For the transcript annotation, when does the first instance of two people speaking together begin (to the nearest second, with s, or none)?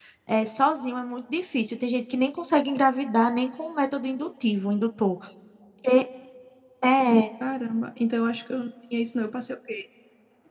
none